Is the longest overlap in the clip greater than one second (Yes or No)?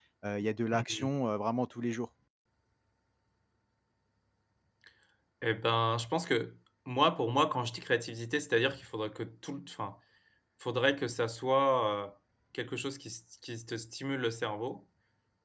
No